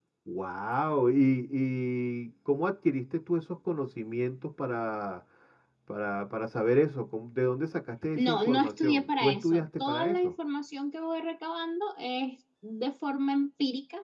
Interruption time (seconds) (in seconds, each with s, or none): 8.2 s